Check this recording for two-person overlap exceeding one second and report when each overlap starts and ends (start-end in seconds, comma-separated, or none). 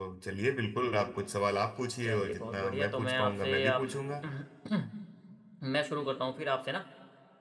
2.0-3.9